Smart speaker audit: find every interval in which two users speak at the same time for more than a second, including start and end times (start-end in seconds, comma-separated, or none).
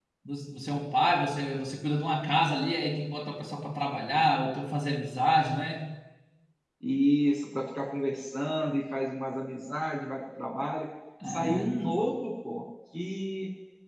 none